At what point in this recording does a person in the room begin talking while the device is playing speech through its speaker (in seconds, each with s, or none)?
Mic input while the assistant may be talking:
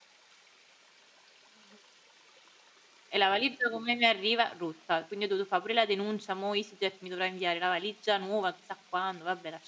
3.1 s